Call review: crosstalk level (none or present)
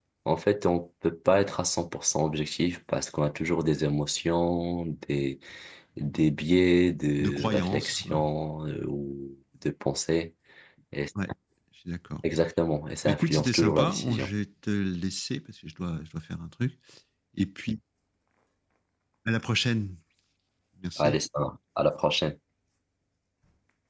present